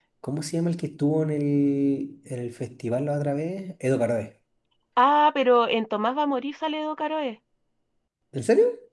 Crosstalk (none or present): none